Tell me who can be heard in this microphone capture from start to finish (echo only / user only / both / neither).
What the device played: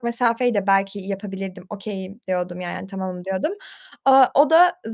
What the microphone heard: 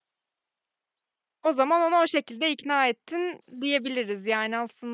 user only